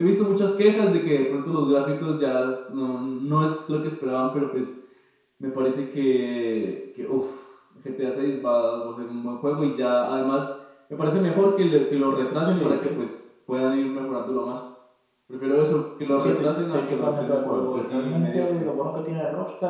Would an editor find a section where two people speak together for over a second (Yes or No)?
Yes